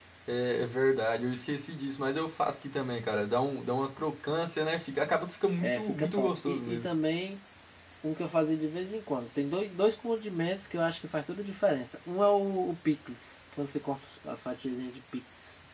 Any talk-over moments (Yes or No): Yes